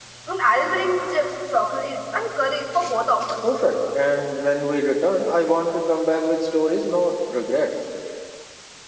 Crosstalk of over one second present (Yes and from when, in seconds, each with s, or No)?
No